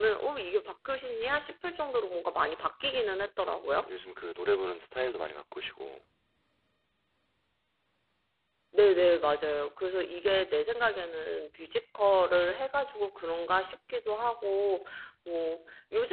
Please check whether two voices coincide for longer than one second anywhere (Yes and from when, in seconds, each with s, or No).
No